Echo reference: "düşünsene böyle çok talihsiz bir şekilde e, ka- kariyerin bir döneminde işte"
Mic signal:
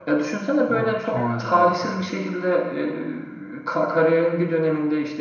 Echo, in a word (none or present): present